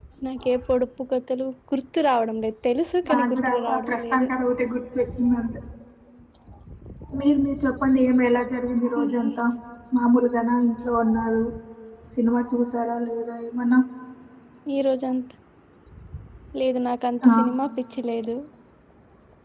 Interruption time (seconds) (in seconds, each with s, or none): 3.1 s